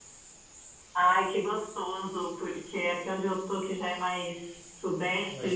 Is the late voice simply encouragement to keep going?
Yes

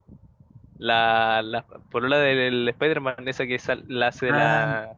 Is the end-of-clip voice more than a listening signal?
Yes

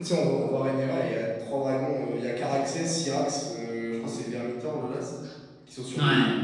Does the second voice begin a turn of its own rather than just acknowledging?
No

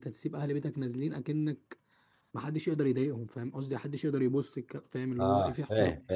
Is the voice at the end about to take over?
Yes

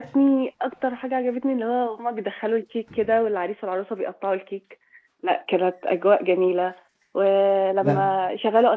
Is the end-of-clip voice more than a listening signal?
No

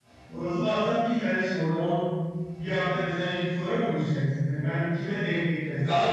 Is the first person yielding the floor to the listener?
Yes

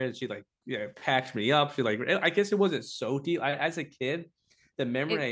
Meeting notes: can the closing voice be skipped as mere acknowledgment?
Yes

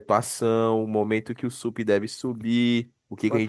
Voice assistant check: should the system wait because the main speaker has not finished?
Yes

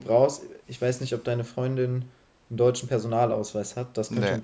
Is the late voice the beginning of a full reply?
No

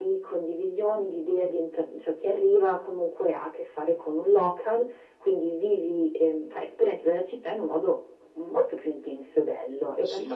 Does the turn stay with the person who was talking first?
No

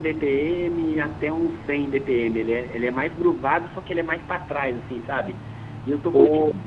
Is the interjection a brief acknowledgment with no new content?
Yes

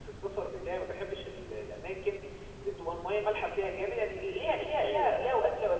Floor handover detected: No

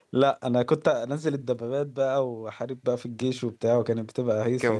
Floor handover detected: Yes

